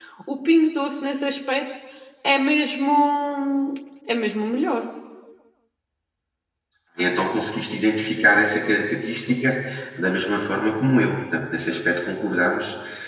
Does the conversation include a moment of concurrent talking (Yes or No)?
No